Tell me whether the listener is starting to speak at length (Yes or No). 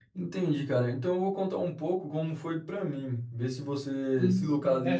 Yes